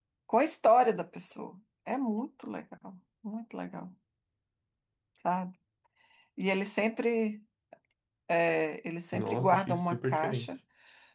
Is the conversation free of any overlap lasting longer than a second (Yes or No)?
No